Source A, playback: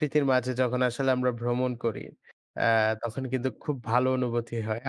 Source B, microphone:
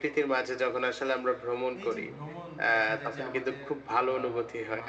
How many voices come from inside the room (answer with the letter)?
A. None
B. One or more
B